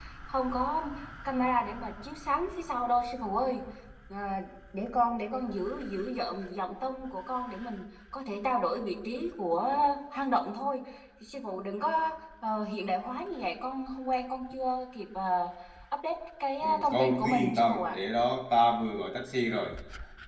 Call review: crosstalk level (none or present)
present